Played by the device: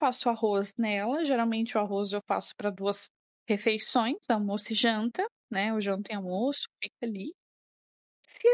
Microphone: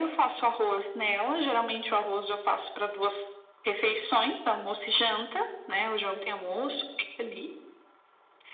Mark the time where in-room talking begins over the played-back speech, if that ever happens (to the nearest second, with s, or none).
none